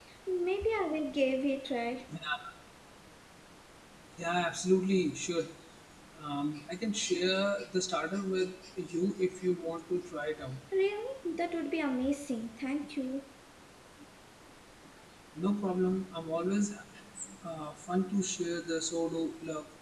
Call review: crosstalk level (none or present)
none